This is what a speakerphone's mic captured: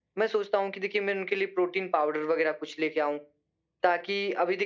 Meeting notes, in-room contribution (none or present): none